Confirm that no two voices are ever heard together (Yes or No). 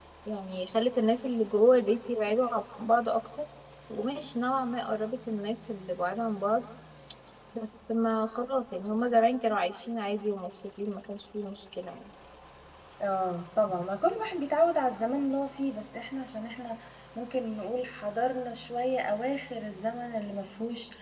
Yes